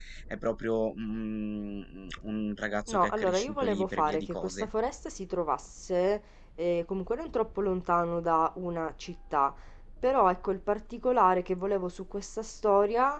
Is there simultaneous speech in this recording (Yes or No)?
Yes